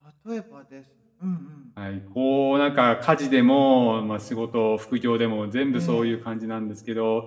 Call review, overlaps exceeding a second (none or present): none